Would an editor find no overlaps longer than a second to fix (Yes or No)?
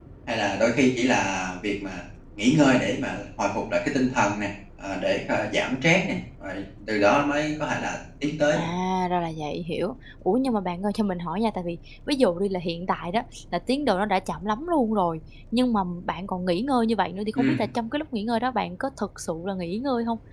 Yes